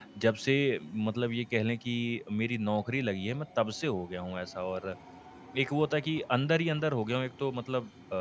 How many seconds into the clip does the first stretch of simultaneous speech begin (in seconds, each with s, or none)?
none